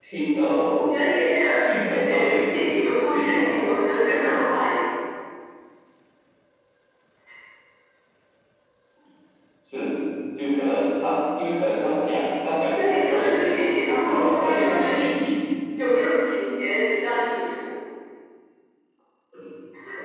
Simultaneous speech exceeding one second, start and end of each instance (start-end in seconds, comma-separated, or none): 1.9-3.4, 12.8-14.9